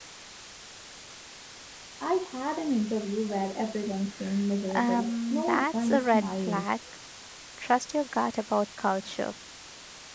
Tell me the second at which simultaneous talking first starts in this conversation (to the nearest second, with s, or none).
5 s